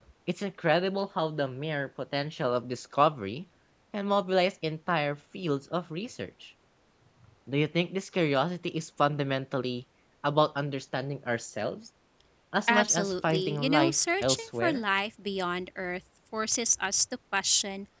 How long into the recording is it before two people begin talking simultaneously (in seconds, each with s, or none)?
12.7 s